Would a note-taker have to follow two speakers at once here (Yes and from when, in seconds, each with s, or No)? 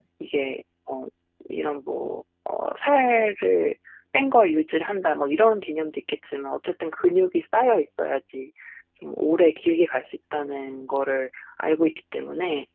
No